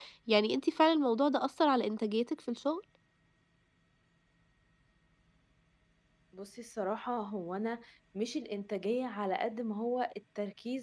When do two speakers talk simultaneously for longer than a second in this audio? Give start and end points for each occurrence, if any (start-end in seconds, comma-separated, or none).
none